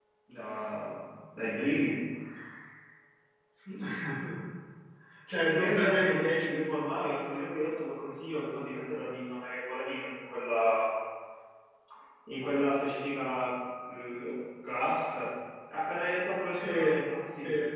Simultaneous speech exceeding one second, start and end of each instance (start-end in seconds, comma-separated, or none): 5.6-7.5